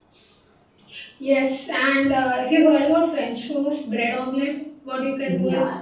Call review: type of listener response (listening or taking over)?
listening